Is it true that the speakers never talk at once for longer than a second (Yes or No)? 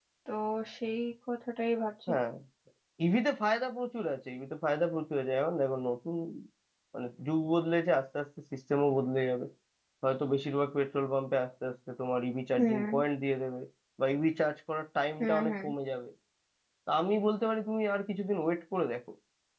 Yes